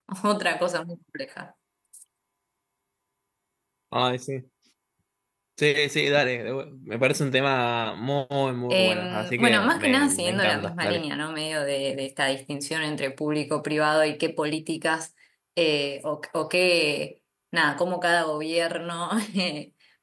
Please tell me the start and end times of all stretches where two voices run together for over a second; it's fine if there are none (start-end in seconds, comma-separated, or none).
8.7-11.0